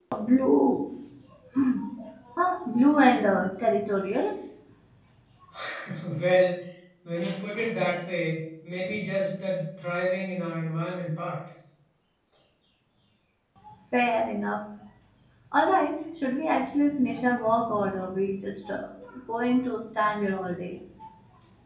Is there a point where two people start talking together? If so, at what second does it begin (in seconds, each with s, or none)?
none